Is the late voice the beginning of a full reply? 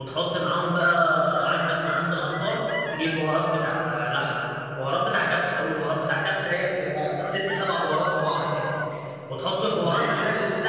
No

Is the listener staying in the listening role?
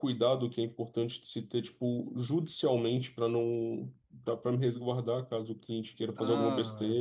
No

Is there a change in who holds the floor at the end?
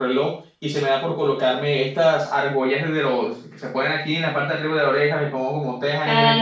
No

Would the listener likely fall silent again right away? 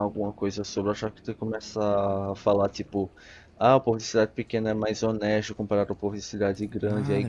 No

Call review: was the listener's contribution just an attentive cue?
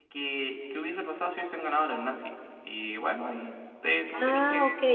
No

